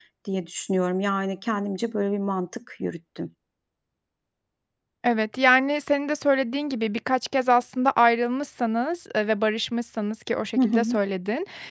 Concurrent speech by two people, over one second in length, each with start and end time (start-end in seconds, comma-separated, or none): none